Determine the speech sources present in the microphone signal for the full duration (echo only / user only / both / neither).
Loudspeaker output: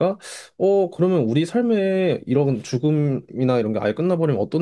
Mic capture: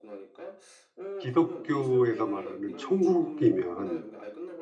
both